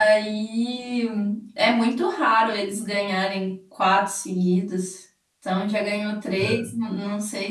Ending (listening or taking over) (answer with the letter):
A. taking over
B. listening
B